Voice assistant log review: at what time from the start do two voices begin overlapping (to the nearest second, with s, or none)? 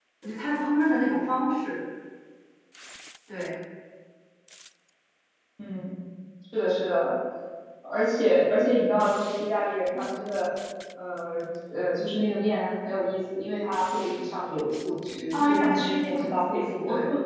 15 s